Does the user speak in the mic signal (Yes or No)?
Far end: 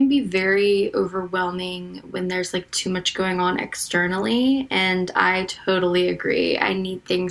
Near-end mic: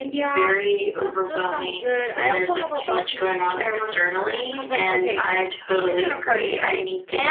Yes